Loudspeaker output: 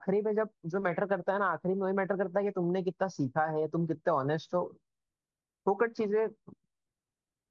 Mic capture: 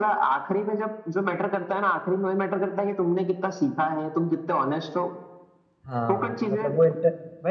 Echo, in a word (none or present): present